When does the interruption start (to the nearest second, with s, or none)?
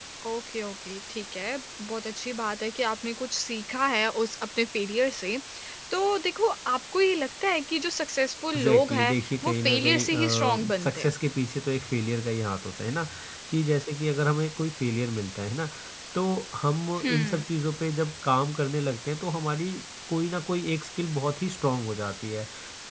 9 s